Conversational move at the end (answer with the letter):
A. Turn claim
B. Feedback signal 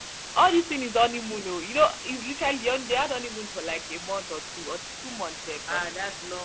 A